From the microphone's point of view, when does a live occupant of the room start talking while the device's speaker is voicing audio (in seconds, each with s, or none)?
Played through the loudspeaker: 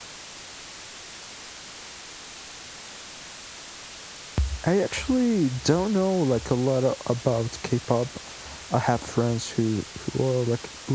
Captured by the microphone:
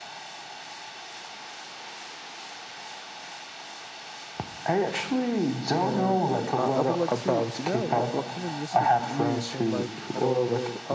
5.8 s